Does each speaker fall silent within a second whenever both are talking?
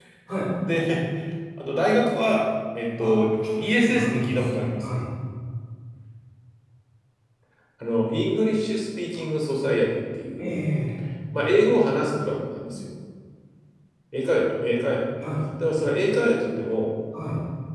No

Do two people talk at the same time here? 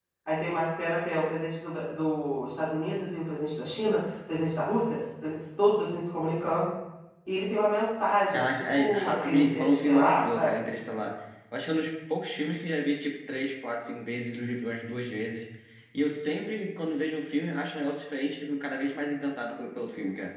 Yes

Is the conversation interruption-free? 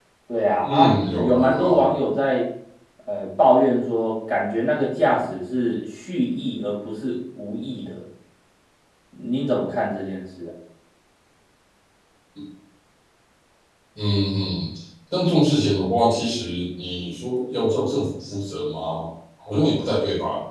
No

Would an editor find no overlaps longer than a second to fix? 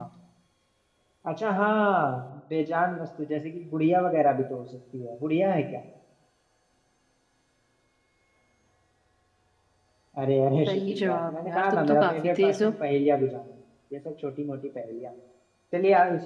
No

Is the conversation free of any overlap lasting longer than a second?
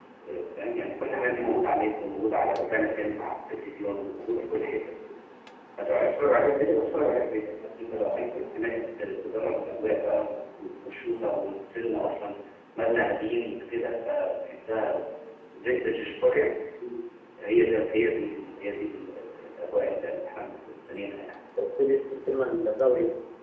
Yes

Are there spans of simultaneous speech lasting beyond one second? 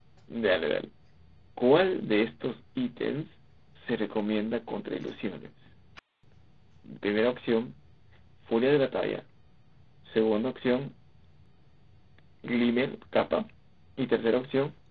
No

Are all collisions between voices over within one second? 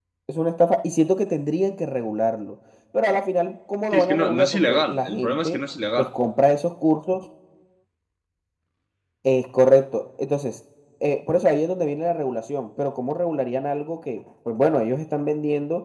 No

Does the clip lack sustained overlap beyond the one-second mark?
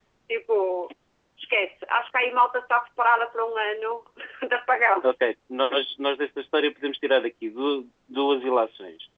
Yes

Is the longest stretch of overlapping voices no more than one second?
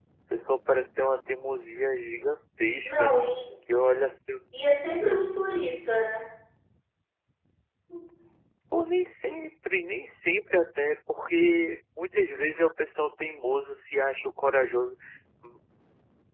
Yes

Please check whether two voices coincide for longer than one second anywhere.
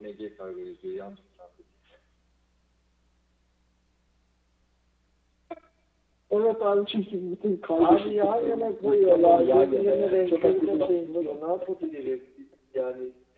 Yes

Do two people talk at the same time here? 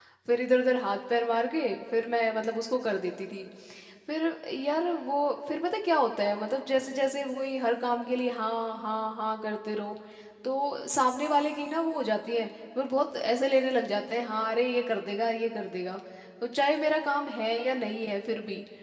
No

